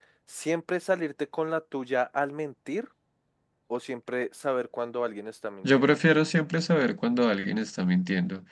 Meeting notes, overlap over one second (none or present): none